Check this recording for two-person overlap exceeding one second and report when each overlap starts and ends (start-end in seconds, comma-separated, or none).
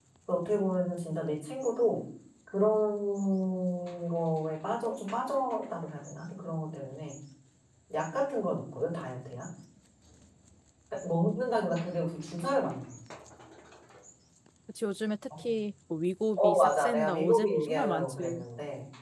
16.4-18.4